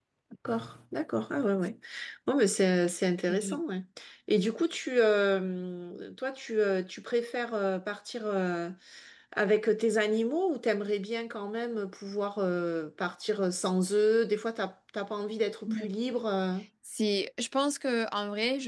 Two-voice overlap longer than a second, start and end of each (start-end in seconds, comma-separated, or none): none